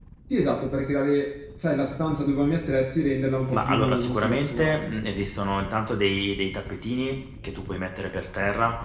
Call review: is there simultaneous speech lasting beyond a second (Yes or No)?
Yes